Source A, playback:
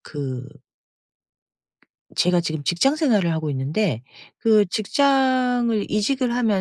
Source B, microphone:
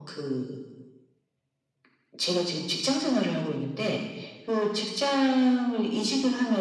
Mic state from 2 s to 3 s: echo only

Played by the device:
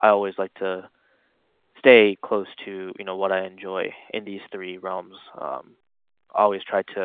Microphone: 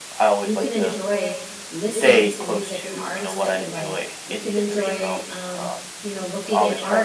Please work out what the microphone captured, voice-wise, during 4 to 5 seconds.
both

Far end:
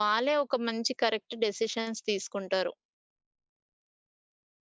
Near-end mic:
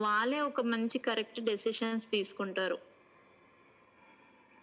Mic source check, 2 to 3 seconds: echo only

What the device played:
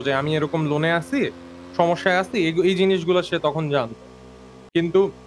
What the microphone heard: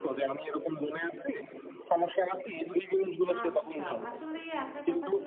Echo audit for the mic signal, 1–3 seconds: echo only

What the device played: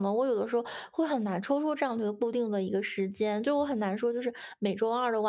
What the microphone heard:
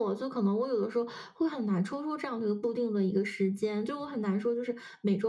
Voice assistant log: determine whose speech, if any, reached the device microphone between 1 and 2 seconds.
echo only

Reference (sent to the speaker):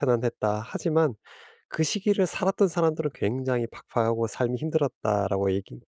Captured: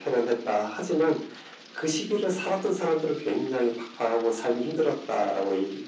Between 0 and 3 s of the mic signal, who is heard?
echo only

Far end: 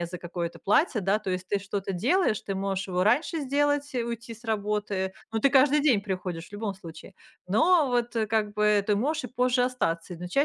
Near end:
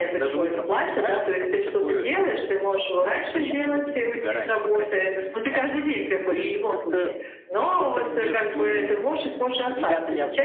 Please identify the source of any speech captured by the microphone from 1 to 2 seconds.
both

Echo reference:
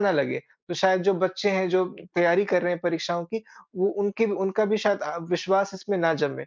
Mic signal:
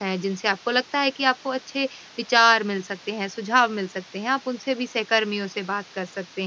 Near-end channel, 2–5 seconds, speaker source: user only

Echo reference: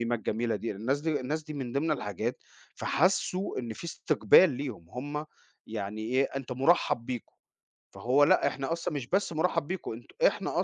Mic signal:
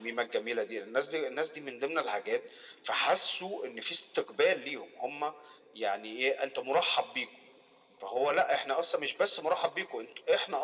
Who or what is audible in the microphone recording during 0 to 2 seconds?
echo only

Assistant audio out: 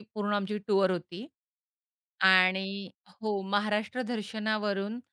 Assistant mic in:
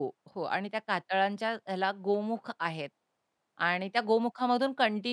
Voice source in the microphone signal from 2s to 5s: user only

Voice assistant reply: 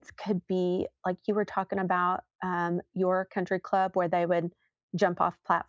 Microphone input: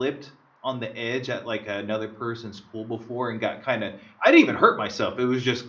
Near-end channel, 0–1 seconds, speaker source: user only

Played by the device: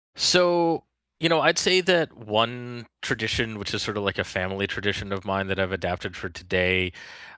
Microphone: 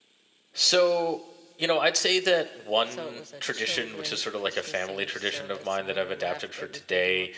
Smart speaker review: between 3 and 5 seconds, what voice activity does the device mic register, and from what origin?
both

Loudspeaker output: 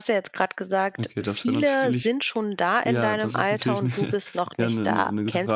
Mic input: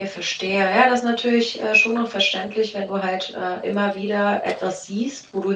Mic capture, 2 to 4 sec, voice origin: user only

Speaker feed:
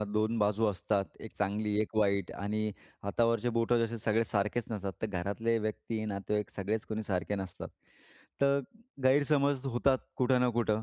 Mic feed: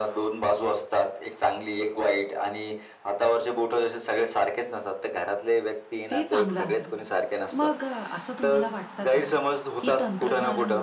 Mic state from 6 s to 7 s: both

